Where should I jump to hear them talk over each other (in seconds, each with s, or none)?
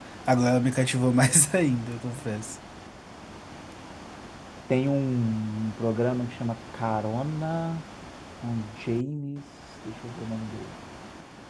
none